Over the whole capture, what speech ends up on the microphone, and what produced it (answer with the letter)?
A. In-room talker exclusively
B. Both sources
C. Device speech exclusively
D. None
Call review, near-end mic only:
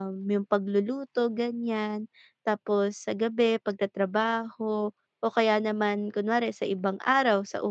A